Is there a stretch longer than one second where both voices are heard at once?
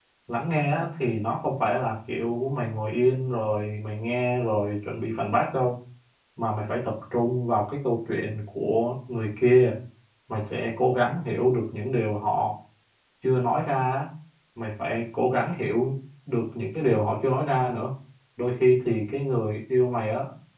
No

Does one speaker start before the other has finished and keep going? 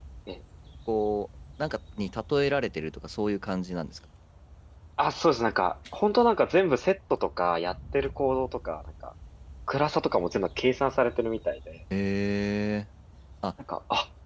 No

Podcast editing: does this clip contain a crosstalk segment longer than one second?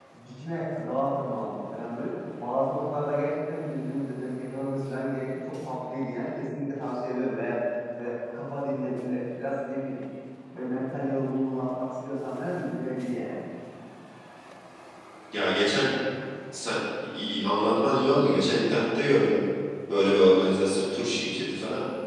No

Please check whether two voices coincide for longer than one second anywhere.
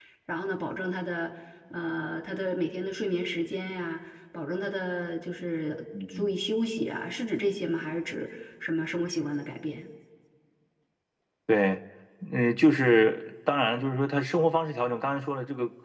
No

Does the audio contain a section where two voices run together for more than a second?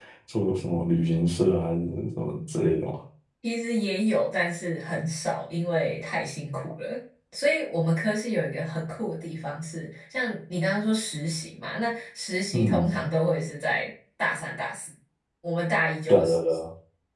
No

